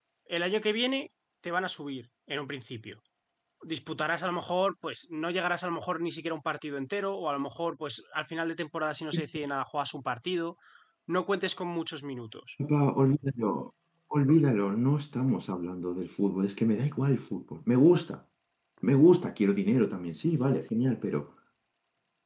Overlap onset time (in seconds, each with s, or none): none